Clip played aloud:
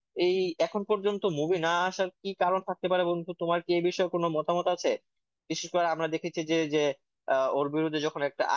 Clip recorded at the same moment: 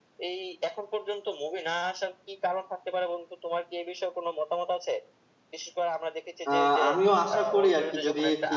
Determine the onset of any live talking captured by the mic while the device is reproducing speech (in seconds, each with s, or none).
6.5 s